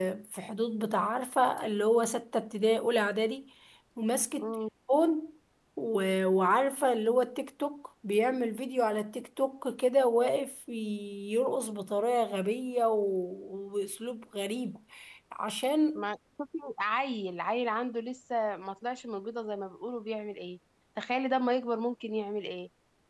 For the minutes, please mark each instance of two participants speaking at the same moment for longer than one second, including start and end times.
none

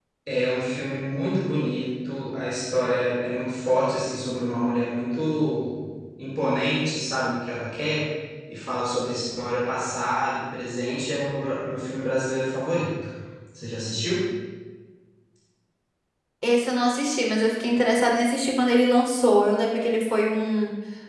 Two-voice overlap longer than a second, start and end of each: none

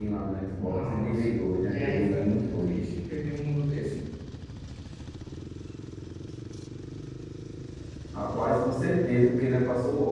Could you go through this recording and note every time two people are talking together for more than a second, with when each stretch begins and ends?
0.6-2.8

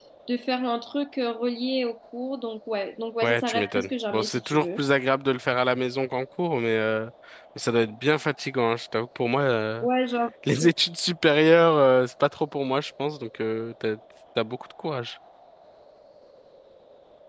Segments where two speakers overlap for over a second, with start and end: 3.2-4.8

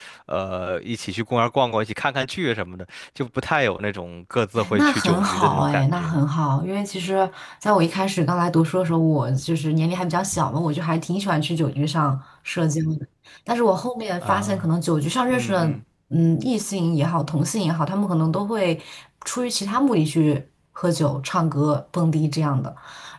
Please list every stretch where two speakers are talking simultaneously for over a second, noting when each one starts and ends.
4.6-6.2

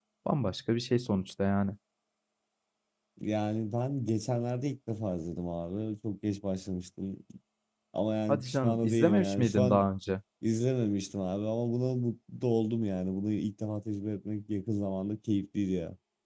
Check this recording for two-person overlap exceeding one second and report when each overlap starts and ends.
8.3-9.8

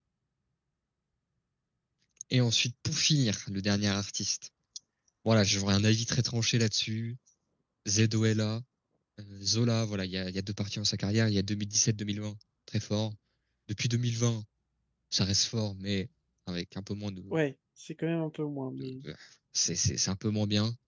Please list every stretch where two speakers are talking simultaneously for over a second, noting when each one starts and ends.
none

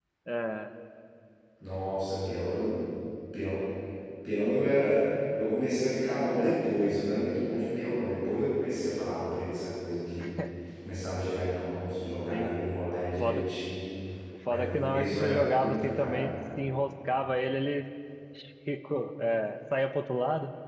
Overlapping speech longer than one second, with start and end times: 14.5-16.3

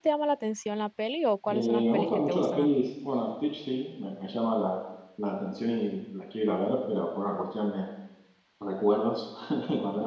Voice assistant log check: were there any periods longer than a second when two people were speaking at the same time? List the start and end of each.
1.5-2.7

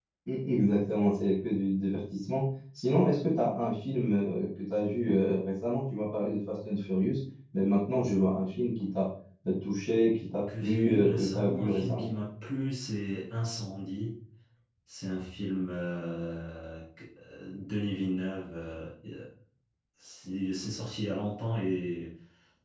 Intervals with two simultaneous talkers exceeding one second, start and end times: 10.6-12.1

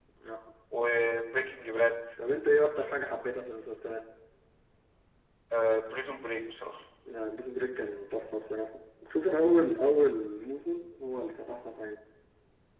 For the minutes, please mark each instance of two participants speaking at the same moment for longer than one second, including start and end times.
none

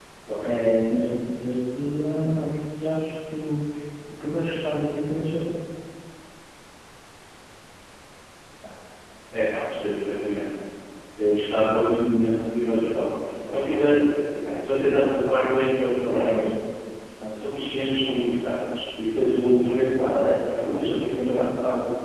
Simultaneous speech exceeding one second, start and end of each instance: 20.1-21.4

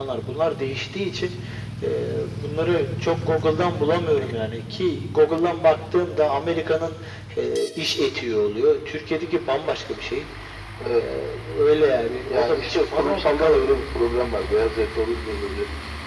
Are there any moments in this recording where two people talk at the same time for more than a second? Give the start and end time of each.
12.3-13.6

